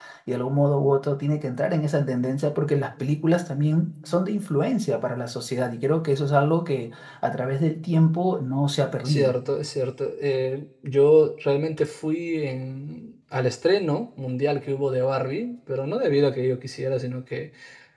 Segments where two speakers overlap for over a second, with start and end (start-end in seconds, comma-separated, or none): none